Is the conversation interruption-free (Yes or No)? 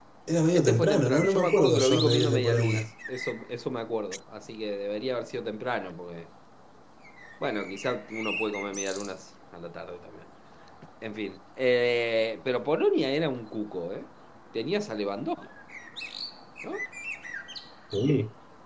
No